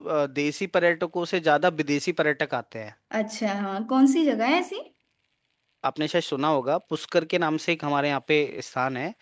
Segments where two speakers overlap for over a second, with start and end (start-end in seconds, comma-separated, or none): none